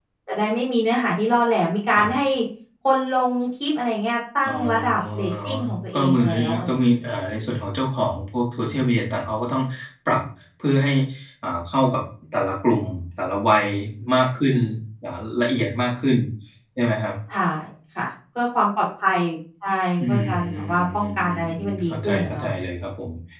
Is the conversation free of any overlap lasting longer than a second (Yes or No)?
No